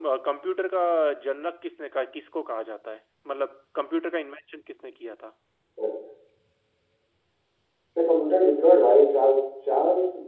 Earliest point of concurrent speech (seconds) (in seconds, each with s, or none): none